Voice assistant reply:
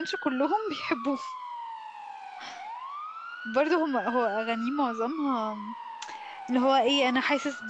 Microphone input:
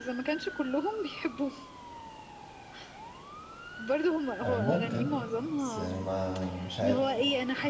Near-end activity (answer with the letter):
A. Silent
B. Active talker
B